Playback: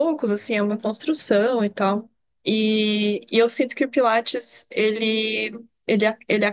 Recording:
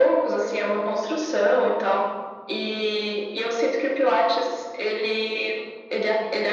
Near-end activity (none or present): none